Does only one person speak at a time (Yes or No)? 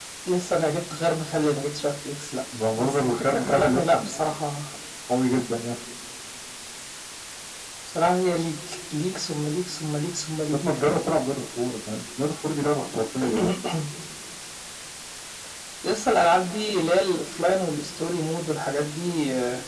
No